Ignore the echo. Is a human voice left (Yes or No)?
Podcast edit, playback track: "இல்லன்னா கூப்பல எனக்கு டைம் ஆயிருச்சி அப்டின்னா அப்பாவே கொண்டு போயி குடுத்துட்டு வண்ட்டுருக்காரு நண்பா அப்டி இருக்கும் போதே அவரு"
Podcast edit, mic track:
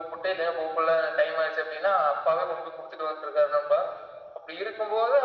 No